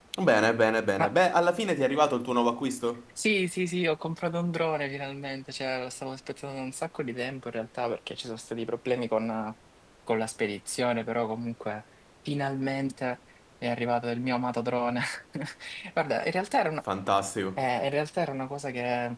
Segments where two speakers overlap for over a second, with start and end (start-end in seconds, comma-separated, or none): none